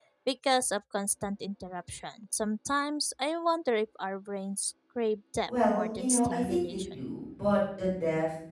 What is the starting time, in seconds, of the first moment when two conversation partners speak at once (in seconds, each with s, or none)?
5.5 s